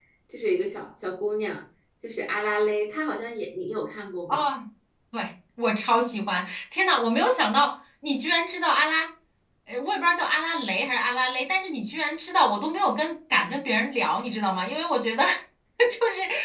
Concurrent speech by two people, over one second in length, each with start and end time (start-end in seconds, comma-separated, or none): none